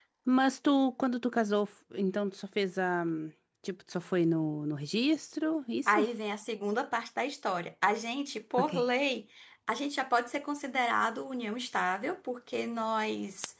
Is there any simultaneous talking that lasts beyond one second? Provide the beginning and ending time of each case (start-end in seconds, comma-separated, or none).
none